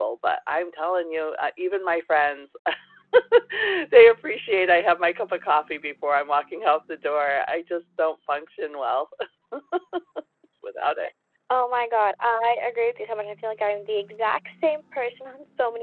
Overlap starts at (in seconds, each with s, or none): none